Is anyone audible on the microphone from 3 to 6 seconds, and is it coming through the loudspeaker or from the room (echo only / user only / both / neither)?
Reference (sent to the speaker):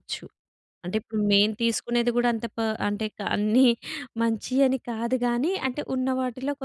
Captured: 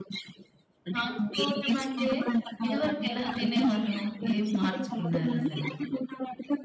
both